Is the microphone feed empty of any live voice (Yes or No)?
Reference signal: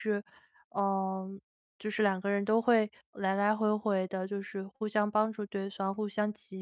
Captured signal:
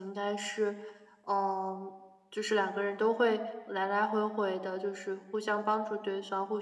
Yes